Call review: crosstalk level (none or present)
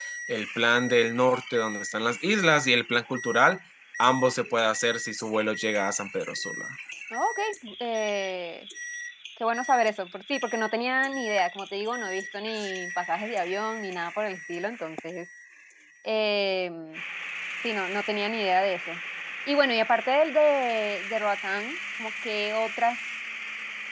none